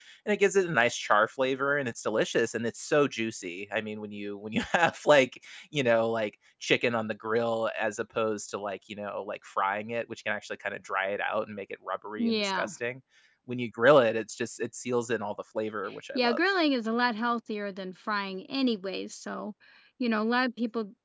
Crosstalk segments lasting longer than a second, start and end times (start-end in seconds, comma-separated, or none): none